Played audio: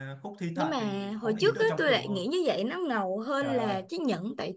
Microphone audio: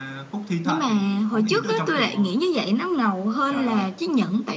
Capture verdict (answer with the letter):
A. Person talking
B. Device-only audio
B